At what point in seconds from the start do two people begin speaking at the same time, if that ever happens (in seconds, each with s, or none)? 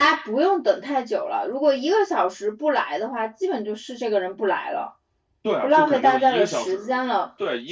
5.6 s